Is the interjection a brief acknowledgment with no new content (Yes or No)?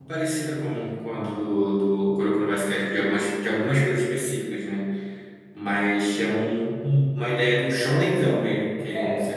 No